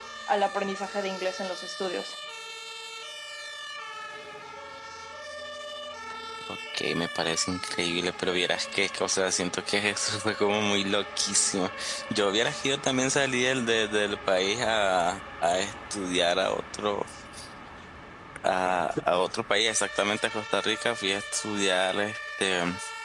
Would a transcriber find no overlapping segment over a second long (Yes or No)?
Yes